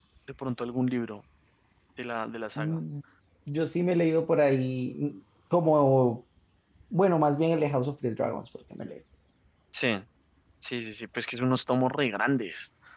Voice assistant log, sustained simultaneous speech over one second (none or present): none